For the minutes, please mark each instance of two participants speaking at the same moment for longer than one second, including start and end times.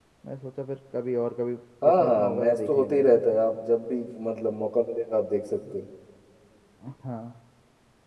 1.9-3.0

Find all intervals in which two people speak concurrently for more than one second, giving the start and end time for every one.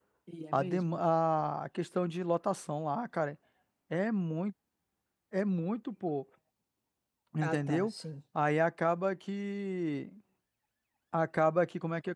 none

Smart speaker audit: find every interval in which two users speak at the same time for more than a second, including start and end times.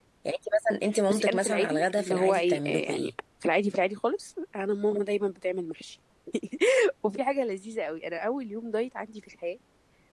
1.1-3.1

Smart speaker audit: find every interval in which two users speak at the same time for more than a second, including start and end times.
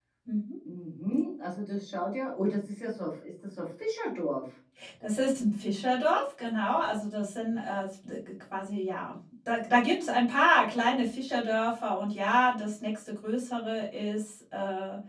none

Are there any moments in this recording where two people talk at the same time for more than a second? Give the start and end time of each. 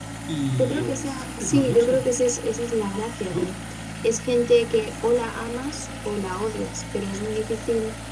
0.6-2.1

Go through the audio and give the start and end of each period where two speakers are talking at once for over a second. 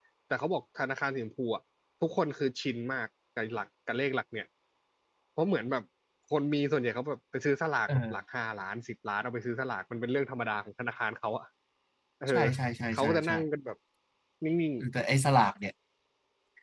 none

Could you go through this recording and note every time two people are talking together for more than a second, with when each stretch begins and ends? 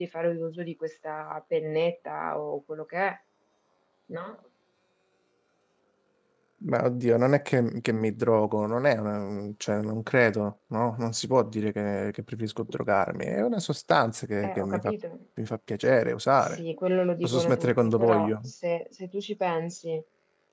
17.2-18.5

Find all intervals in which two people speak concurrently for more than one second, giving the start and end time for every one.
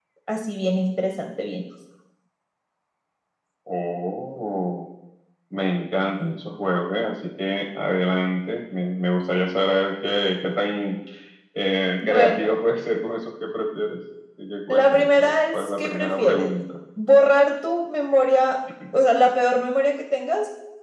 14.7-16.5

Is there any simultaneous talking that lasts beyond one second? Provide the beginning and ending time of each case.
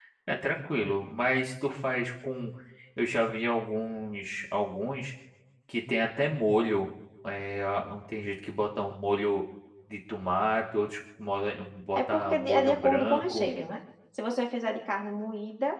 11.9-13.5

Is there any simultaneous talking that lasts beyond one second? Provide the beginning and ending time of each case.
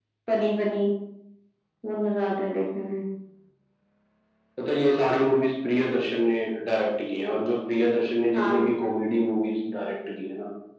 none

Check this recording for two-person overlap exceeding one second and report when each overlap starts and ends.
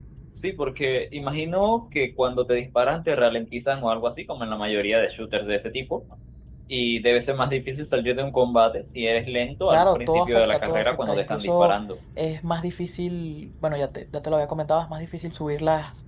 9.7-11.8

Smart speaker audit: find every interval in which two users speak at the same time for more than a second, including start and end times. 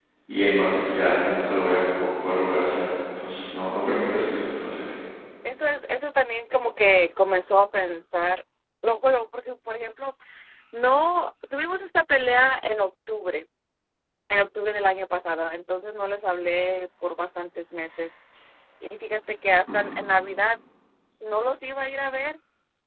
none

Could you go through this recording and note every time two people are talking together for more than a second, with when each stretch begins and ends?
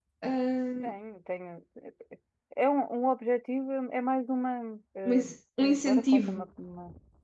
5.0-6.4

